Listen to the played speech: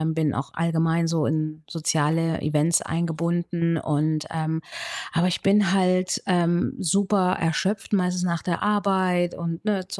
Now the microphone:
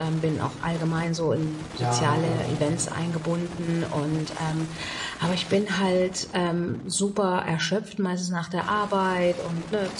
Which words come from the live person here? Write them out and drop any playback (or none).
Ja, klar.